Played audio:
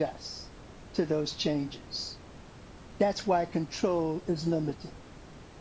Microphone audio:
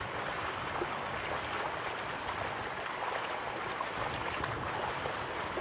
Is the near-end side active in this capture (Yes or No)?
No